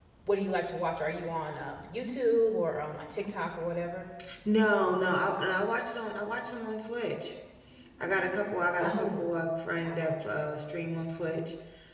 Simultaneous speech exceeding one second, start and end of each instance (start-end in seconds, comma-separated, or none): none